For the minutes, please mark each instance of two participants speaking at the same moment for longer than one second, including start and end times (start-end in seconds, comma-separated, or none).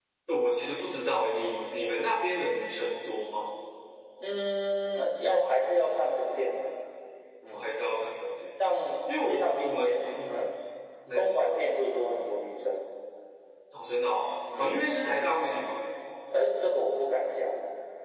9.2-10.5